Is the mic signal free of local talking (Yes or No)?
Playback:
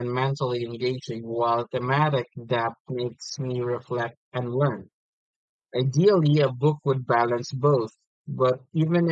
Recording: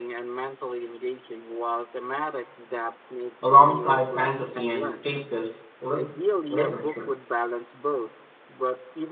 No